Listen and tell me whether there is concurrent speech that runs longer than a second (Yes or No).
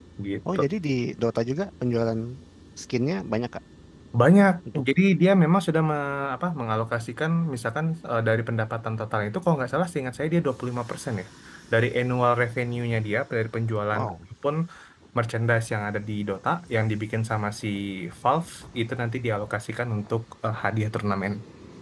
No